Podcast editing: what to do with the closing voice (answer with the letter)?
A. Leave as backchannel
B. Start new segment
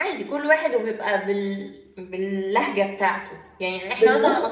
A